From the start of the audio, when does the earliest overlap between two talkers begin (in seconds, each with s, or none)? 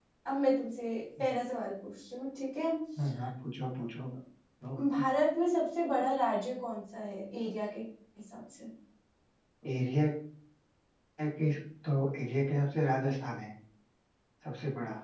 none